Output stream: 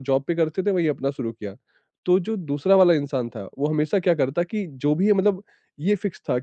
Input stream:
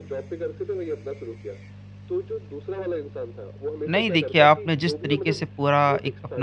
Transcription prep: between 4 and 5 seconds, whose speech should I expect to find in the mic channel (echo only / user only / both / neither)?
both